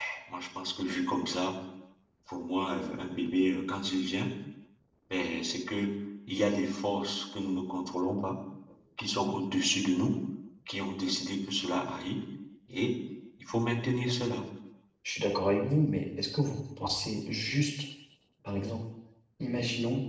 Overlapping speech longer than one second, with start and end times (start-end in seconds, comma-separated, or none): none